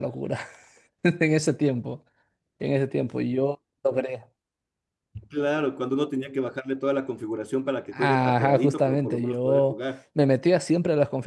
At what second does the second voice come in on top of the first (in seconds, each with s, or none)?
7.9 s